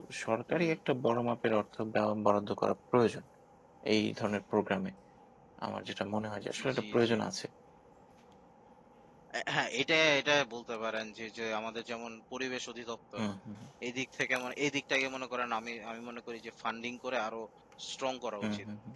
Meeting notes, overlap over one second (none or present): none